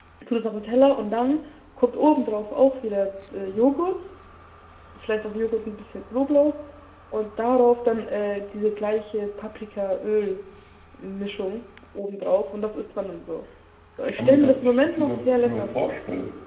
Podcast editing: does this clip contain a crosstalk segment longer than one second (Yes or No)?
Yes